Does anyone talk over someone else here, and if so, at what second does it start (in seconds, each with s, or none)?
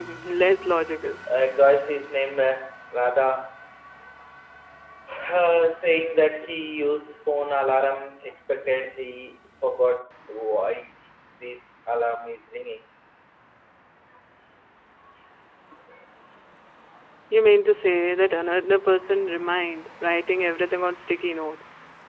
none